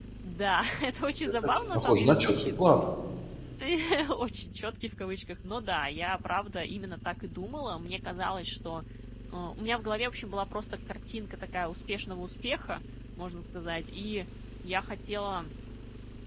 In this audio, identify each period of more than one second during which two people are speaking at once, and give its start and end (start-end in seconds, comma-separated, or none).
1.2-2.5